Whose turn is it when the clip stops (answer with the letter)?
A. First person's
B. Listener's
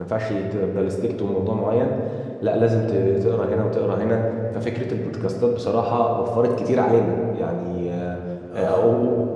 A